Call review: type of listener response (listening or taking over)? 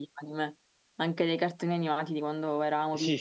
taking over